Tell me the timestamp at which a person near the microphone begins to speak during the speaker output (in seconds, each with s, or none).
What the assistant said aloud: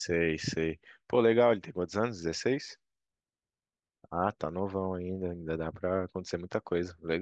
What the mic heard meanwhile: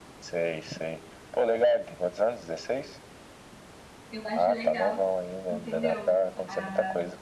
4.1 s